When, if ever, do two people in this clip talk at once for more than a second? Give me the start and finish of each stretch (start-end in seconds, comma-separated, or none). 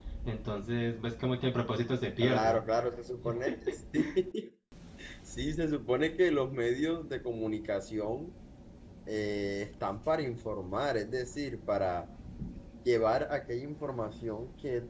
none